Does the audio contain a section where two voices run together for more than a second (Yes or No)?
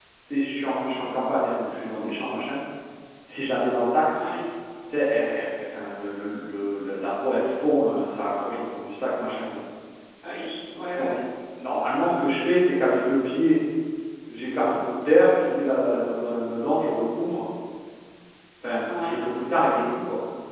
No